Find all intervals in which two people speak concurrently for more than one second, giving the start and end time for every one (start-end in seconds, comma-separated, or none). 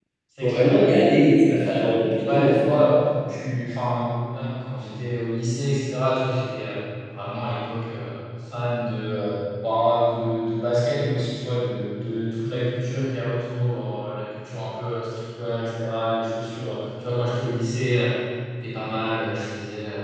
1.4-2.8